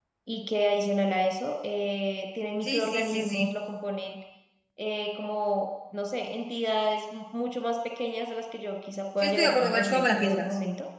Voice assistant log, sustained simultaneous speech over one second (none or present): present